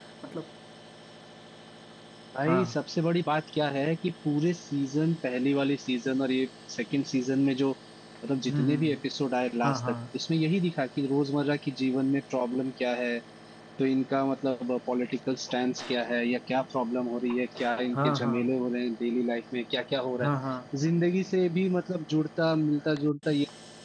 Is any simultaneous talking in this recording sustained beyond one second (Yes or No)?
No